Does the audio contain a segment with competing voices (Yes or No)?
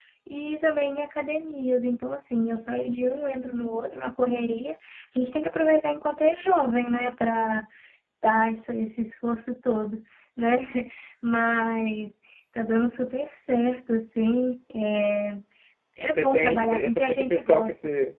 Yes